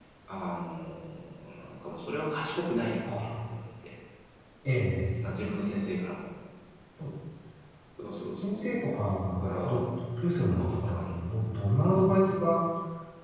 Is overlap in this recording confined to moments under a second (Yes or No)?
No